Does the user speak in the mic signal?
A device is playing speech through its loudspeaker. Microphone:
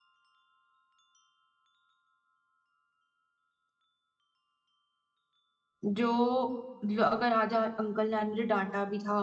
Yes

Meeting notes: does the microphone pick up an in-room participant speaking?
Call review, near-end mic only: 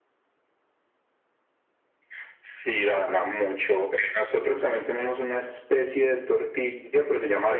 No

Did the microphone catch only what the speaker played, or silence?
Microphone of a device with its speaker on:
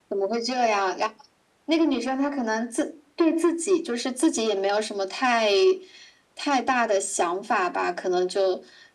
Yes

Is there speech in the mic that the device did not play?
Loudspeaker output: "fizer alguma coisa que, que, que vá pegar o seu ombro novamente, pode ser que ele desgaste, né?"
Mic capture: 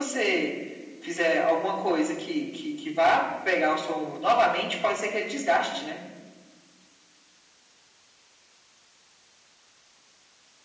No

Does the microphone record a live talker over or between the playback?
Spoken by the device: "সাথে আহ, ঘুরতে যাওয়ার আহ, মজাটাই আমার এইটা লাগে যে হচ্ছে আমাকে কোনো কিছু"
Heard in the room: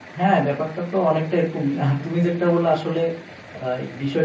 Yes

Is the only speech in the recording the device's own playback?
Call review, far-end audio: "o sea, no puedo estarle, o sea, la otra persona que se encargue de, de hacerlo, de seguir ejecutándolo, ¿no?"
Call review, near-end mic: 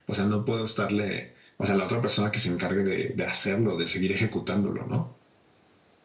Yes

